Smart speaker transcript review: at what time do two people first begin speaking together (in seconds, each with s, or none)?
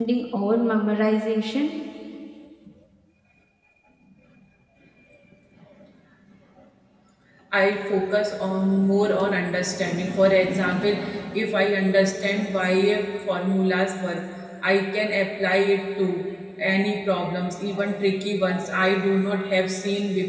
none